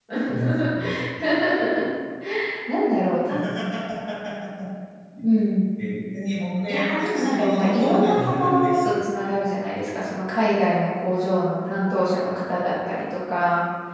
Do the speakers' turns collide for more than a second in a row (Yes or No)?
Yes